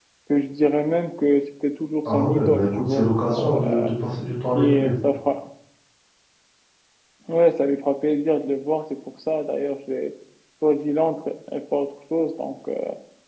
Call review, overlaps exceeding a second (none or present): present